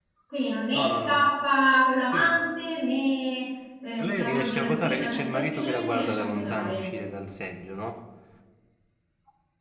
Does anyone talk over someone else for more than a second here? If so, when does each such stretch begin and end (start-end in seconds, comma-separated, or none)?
4.0-6.8